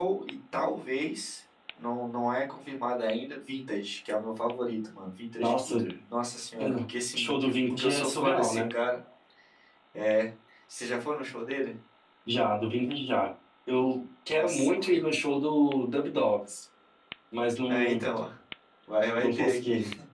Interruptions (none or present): present